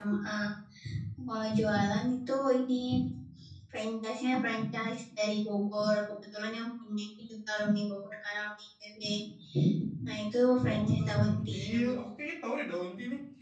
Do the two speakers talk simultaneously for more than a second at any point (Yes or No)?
Yes